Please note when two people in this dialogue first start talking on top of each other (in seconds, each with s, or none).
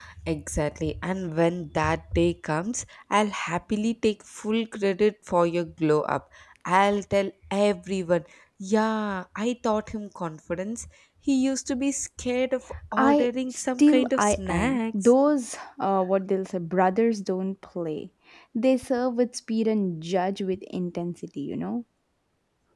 12.9 s